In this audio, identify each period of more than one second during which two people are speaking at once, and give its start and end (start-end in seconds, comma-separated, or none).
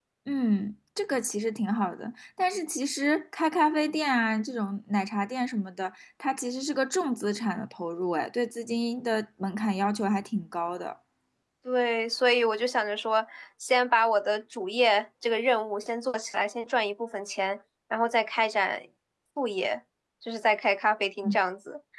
none